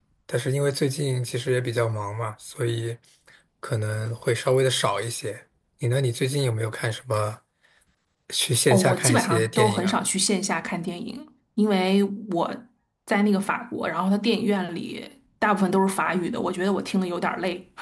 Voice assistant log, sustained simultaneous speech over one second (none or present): present